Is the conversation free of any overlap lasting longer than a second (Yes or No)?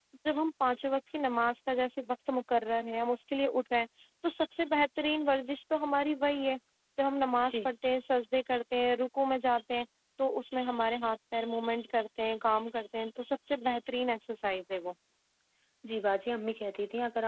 Yes